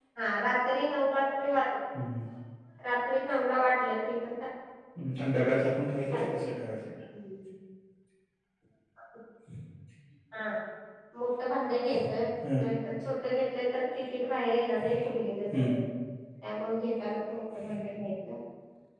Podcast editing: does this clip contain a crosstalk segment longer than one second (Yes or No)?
No